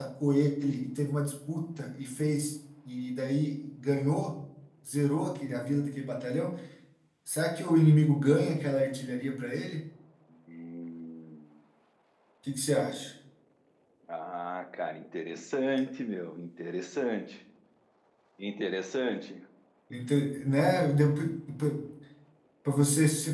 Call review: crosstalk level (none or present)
none